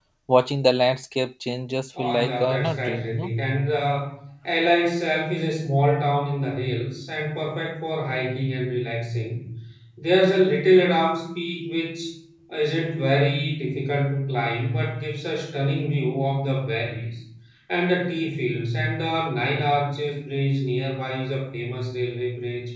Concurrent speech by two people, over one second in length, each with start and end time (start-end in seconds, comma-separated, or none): 2.0-3.3